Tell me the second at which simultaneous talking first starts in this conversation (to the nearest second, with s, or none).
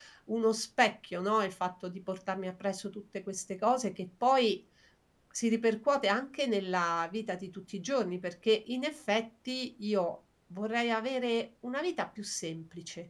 none